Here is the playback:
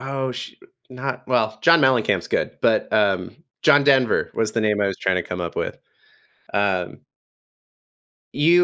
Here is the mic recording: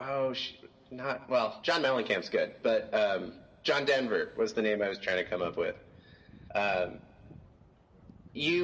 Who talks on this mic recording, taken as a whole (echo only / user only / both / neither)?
echo only